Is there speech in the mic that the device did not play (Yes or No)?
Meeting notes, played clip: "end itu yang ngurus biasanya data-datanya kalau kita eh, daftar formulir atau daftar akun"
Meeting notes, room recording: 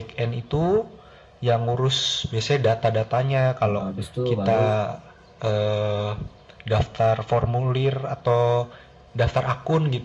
Yes